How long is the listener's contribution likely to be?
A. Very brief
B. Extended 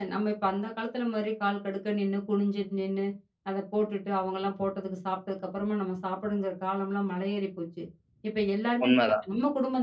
A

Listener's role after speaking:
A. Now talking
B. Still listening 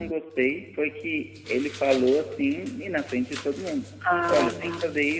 B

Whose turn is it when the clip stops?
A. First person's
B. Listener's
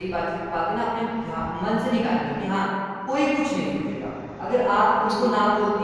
A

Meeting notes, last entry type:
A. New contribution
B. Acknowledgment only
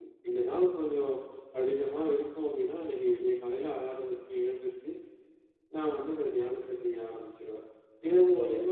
B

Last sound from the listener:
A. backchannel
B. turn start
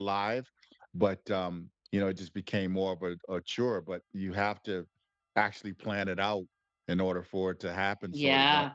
B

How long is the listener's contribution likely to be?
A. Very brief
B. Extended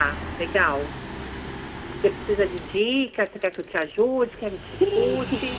B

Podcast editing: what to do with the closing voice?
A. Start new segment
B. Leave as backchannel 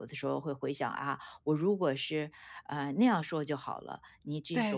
B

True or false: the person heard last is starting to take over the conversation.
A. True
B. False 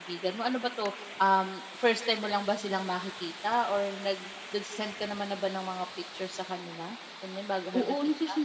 A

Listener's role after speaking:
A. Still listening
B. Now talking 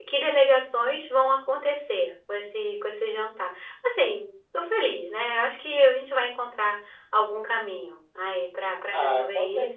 B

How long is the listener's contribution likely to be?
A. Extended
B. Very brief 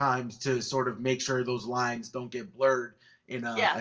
B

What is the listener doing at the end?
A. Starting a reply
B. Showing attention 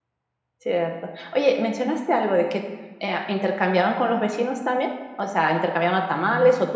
B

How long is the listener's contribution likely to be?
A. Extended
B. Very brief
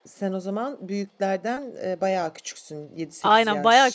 A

